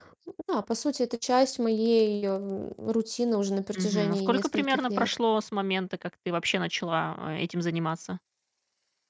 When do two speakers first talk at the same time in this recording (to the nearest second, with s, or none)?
4 s